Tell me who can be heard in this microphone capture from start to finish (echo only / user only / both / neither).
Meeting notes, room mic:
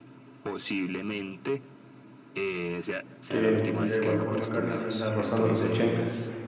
both